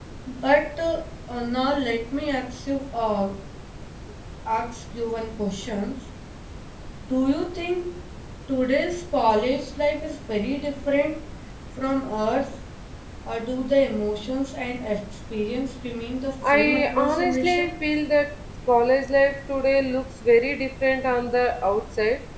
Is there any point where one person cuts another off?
Yes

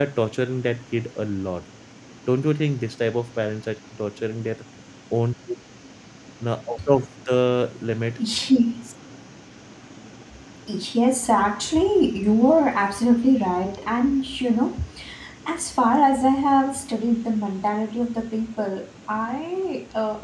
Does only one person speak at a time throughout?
Yes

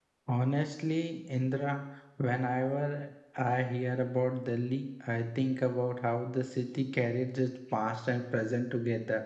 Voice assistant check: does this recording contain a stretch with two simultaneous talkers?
No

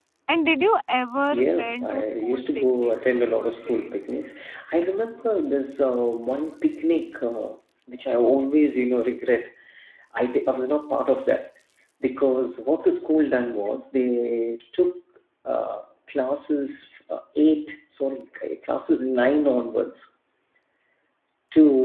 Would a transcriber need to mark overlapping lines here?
Yes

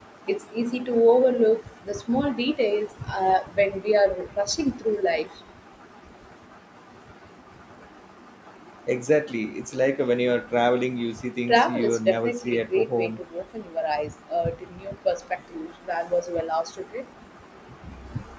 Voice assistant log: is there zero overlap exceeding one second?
No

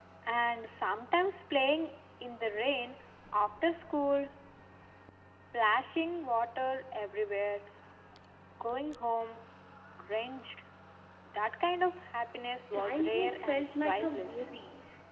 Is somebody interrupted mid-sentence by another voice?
Yes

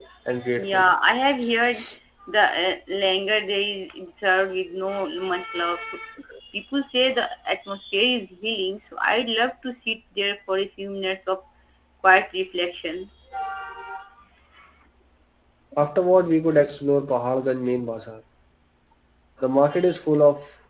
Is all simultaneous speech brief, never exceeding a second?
Yes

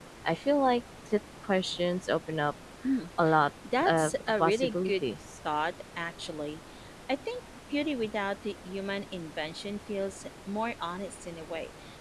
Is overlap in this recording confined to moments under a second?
No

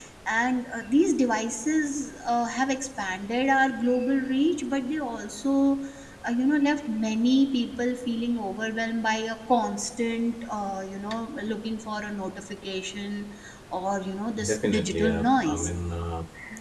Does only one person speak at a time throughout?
No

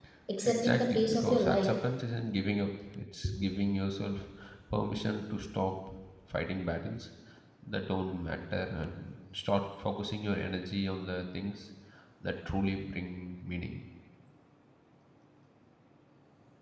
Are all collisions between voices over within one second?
No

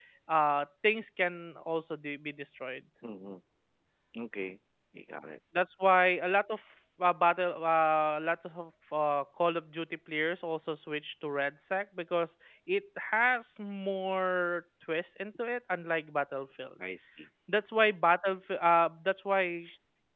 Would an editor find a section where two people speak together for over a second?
No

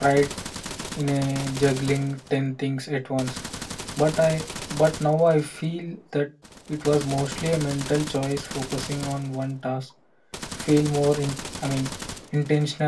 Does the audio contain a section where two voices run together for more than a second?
No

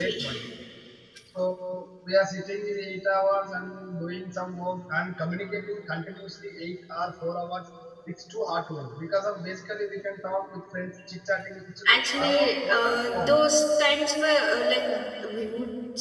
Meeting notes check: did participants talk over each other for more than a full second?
Yes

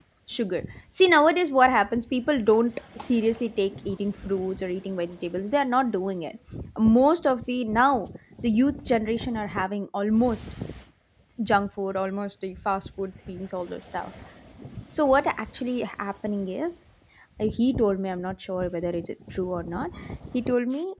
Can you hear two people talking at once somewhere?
No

